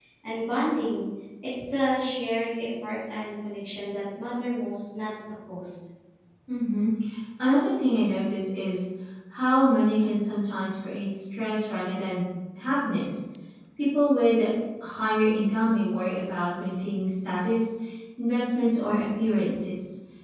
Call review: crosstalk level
none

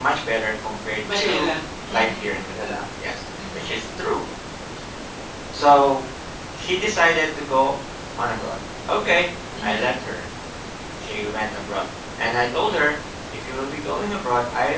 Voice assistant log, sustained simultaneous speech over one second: none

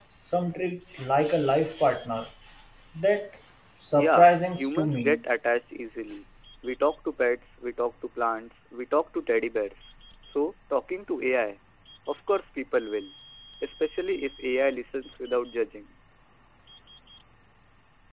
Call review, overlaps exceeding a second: present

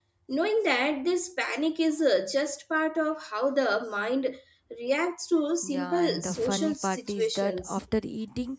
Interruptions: present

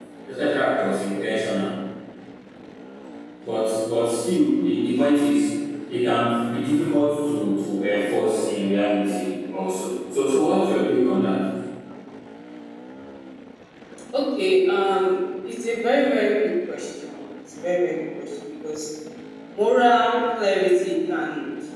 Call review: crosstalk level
none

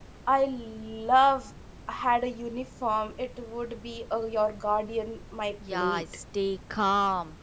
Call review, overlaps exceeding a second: none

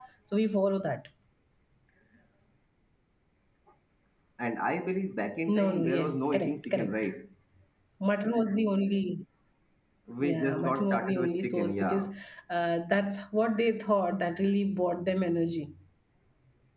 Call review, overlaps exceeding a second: present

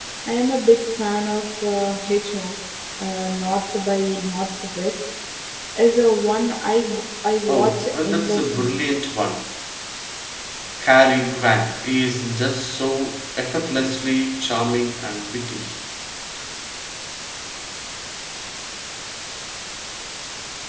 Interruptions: present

